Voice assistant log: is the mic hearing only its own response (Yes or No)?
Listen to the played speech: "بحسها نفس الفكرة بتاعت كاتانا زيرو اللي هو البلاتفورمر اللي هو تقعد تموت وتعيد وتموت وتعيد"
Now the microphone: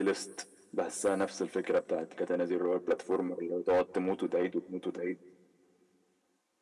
Yes